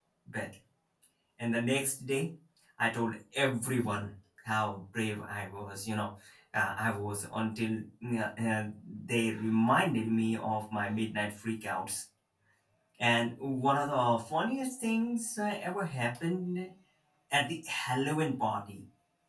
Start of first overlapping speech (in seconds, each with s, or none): none